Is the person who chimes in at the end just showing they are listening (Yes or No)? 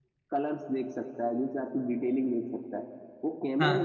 Yes